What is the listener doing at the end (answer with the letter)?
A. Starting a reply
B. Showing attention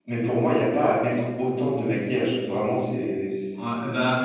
A